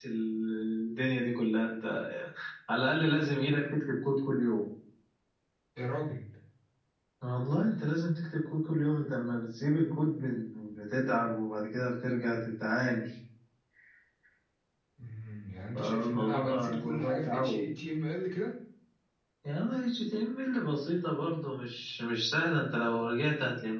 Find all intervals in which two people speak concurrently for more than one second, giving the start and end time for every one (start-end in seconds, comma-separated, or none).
15.8-17.8